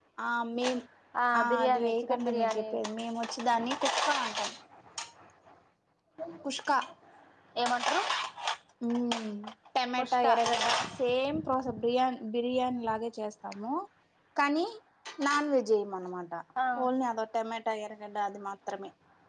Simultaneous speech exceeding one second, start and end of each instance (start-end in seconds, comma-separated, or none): 1.4-2.6